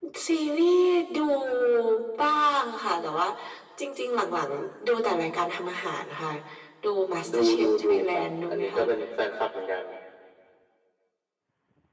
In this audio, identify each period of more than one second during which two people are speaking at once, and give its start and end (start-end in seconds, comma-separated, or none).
7.3-8.8